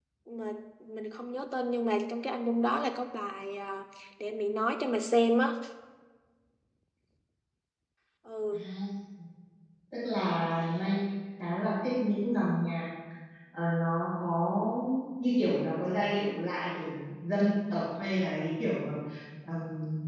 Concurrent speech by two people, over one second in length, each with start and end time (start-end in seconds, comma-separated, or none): none